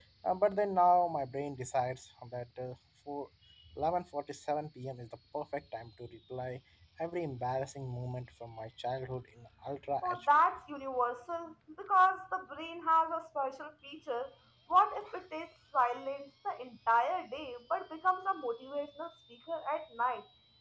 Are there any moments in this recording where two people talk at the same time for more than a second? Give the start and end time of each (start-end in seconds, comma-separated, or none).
none